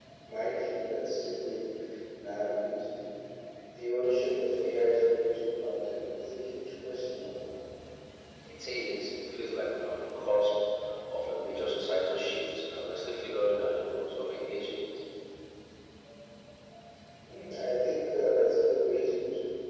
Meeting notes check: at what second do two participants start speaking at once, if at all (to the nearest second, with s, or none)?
none